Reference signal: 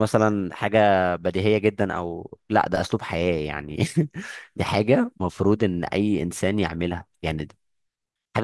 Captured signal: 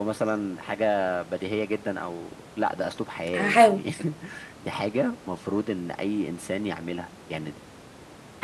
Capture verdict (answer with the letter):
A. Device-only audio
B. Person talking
B